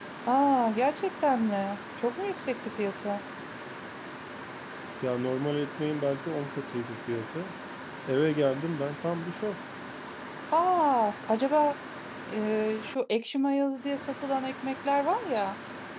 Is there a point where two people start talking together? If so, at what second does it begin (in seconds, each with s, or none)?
none